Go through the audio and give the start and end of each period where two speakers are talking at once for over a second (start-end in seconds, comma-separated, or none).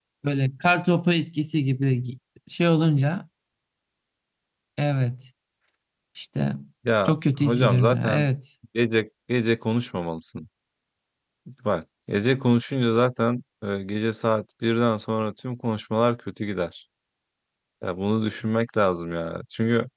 7.0-8.3